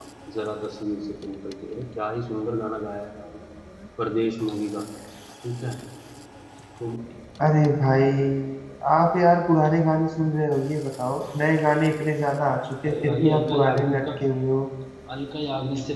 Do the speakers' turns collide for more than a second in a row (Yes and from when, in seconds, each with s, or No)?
Yes, from 12.9 s